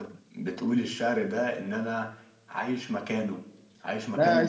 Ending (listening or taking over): taking over